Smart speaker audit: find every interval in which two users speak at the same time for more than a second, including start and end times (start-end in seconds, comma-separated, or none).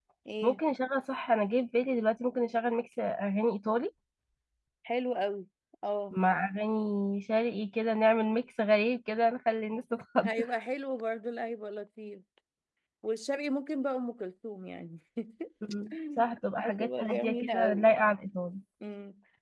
16.6-17.9